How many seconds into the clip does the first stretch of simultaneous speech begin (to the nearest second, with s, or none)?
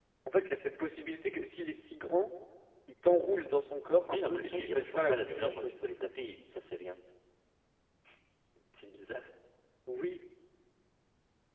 4 s